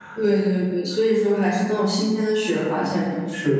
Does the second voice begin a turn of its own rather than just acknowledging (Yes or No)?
Yes